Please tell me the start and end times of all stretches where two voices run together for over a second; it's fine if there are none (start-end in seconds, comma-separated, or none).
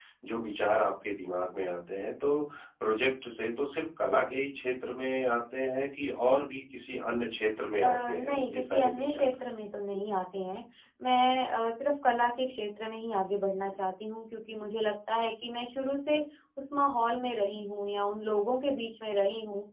7.8-9.3